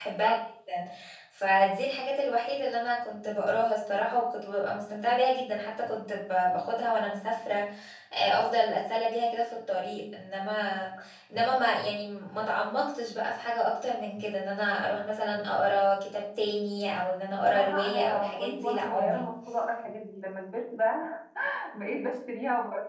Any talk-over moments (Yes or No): Yes